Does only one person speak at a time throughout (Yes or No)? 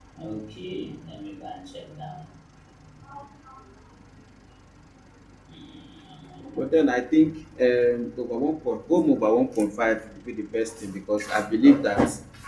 Yes